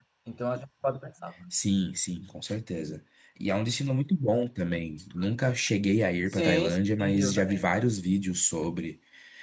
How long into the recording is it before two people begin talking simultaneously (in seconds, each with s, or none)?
6.3 s